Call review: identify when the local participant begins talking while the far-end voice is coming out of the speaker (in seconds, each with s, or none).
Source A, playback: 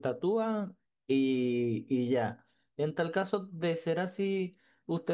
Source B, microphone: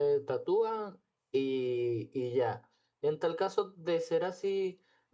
none